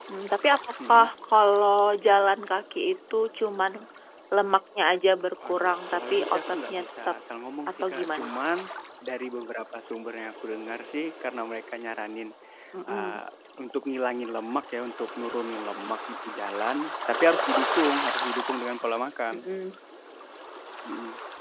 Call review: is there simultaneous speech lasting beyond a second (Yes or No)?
Yes